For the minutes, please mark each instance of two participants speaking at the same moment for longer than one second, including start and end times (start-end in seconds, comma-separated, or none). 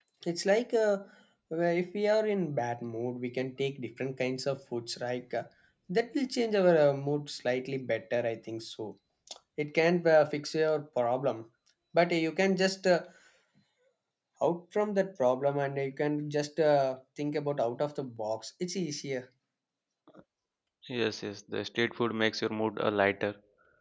none